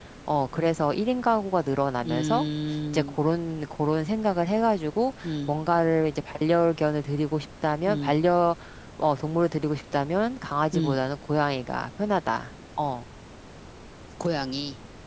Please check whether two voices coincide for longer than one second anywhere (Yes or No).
No